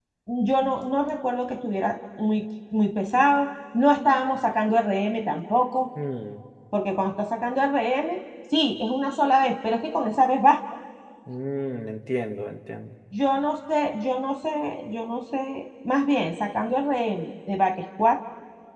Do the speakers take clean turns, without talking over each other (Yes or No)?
Yes